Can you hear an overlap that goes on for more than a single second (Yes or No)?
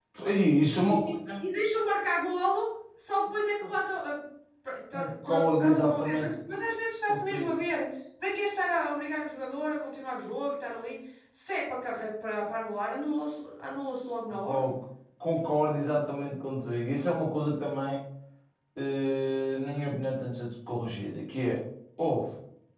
Yes